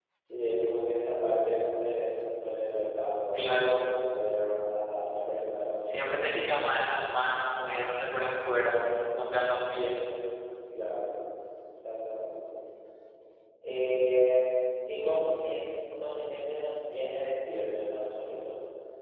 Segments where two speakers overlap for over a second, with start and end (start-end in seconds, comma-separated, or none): none